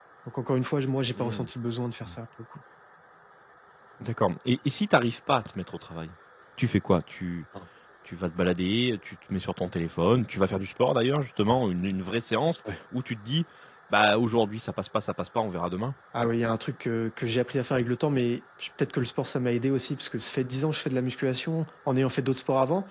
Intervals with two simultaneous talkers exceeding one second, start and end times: none

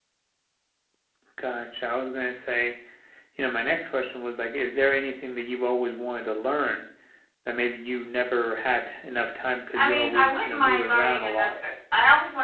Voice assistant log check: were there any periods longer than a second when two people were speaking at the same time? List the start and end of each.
9.7-11.6

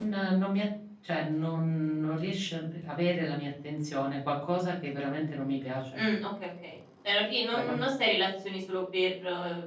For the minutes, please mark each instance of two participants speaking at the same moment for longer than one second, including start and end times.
none

